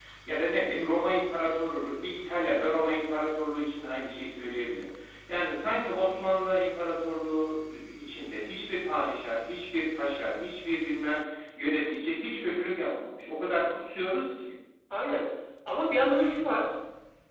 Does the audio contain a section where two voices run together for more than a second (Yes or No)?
No